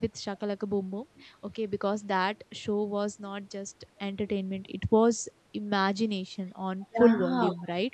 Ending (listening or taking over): taking over